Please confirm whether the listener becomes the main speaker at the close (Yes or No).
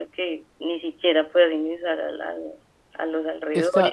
Yes